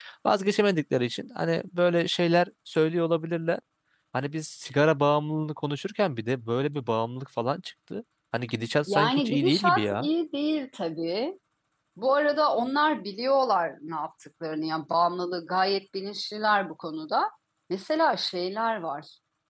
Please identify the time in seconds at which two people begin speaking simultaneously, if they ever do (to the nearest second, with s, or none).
9 s